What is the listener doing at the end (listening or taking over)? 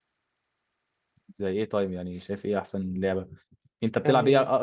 listening